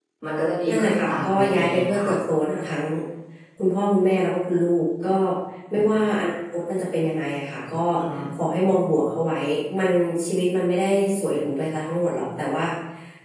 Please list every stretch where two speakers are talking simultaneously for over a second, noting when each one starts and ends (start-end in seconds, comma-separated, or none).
0.7-2.1